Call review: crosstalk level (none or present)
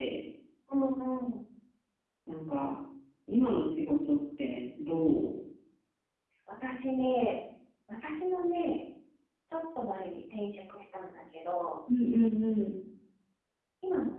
none